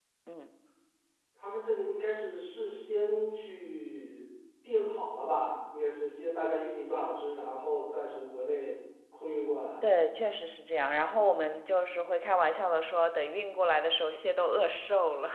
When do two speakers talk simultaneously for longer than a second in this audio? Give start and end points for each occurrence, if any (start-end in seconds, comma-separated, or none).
none